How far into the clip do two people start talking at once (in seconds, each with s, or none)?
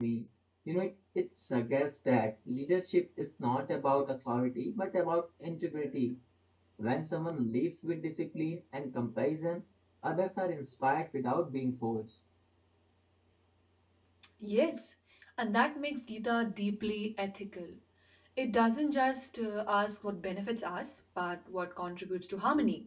none